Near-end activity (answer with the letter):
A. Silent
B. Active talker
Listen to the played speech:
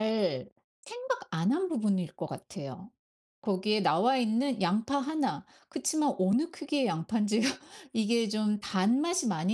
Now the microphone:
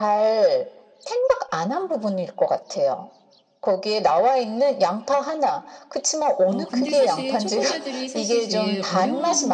B